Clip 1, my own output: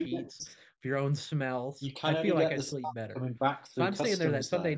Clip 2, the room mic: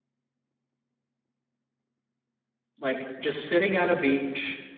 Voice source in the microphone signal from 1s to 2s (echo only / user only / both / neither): neither